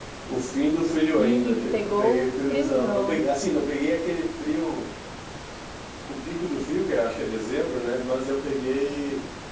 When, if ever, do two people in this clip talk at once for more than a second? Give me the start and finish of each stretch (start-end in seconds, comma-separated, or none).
1.1-3.2